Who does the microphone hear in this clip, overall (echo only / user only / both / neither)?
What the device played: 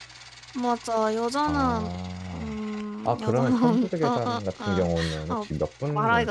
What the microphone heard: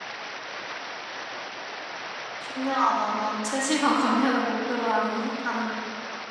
user only